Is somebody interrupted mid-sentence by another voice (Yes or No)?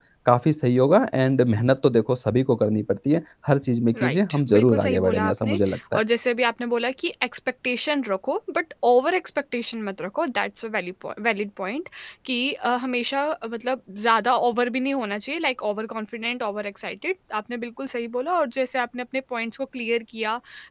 Yes